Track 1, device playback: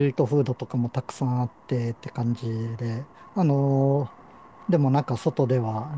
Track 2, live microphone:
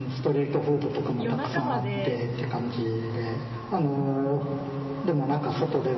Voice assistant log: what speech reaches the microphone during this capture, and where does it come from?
both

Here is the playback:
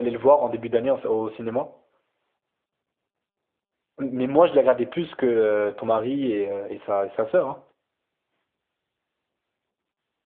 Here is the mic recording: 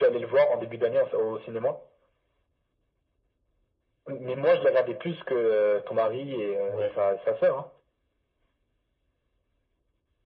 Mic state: both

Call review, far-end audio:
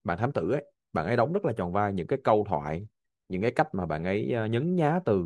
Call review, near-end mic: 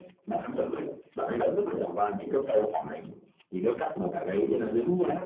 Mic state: both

